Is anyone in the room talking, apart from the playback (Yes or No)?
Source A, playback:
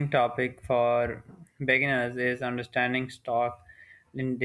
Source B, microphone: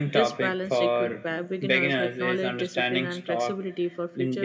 Yes